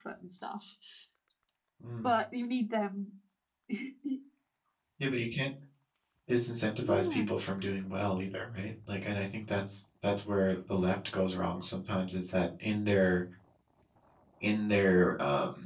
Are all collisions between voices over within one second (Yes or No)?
Yes